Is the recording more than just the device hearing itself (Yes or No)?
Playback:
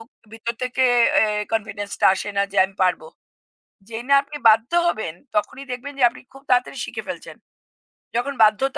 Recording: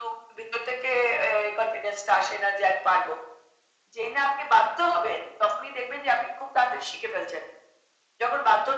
No